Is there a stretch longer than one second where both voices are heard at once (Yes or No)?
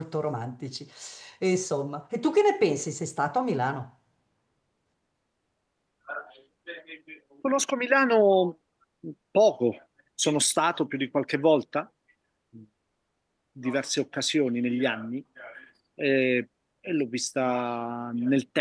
No